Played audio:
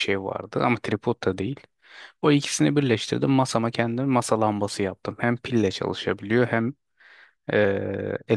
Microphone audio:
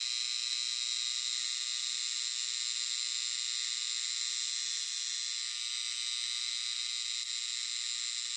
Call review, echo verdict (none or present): none